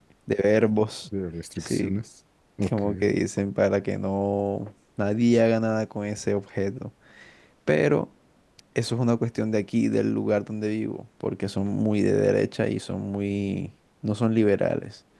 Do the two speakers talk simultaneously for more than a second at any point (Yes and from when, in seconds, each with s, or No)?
No